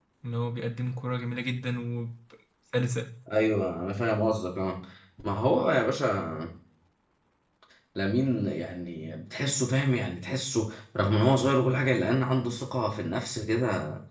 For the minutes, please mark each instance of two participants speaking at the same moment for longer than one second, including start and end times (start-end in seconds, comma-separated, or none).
none